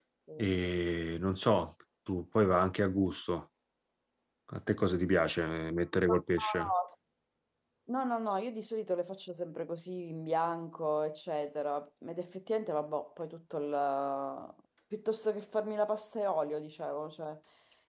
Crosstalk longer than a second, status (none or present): none